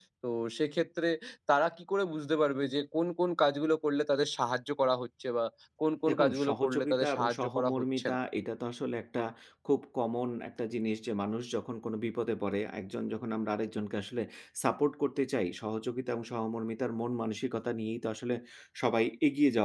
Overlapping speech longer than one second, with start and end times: 6.1-8.2

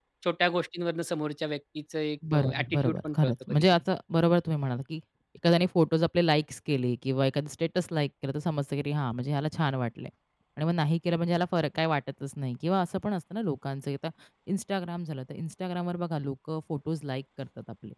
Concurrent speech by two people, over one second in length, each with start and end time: 2.3-3.6

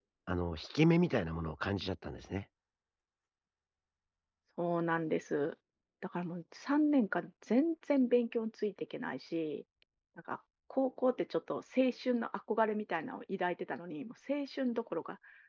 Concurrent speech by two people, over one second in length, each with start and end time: none

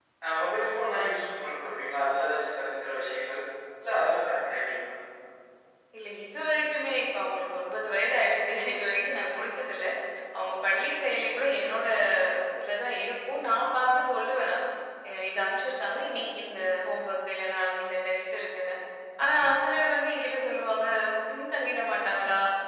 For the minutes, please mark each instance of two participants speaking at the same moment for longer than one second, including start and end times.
none

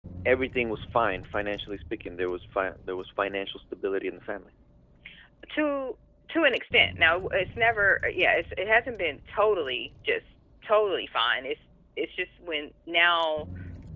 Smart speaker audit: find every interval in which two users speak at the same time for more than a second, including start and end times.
none

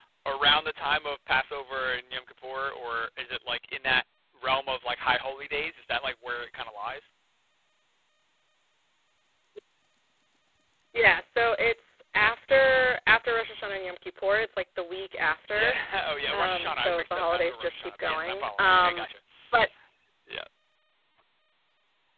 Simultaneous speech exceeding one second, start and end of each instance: 16.3-19.1

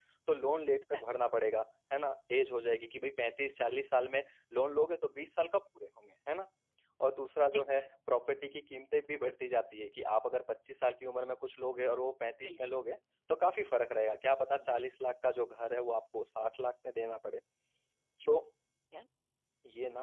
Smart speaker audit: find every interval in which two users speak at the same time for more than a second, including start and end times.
none

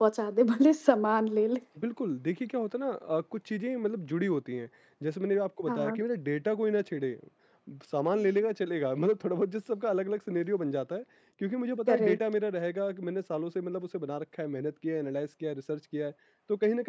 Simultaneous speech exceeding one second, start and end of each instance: none

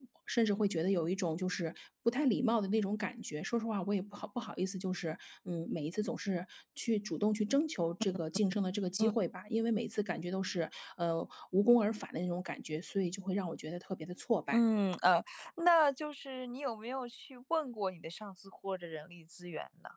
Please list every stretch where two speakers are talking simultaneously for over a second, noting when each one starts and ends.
none

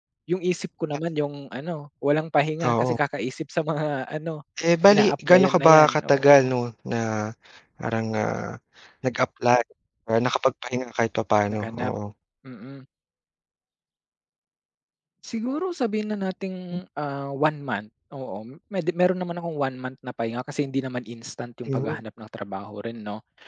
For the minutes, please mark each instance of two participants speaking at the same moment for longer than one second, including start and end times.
4.9-6.5

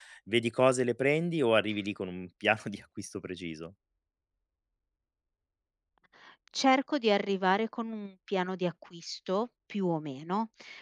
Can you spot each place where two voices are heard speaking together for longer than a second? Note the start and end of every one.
none

